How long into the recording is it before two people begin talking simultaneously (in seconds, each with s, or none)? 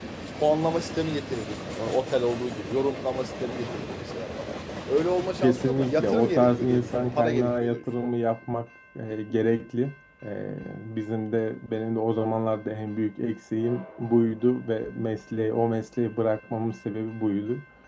5.4 s